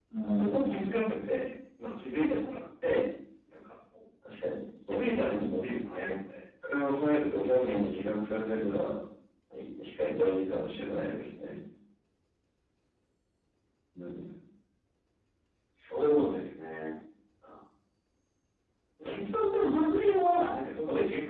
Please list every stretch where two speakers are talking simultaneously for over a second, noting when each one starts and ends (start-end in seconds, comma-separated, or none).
6.6-8.2